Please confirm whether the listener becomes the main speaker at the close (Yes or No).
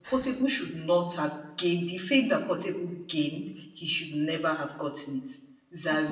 No